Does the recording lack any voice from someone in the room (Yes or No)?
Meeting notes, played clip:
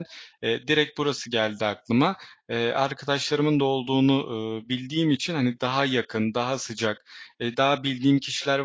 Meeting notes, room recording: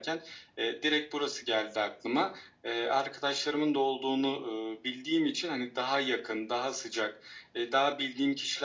Yes